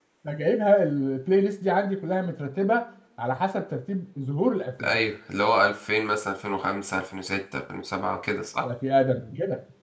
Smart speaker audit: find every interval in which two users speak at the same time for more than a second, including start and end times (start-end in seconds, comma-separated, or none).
none